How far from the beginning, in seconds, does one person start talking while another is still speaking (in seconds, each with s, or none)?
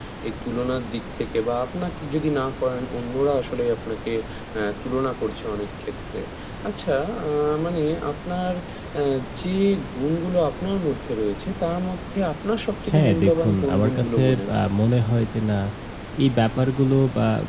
12.8 s